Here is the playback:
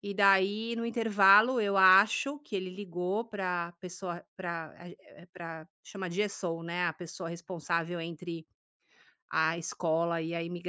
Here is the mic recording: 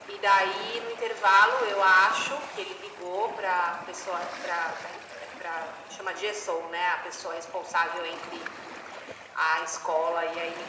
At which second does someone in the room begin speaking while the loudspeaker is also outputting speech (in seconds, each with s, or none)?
none